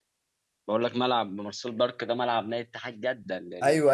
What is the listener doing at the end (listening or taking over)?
taking over